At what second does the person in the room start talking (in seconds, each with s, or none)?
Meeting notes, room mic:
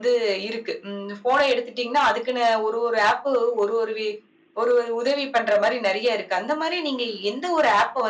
none